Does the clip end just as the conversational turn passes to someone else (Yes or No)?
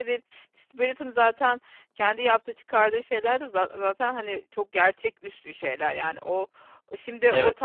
Yes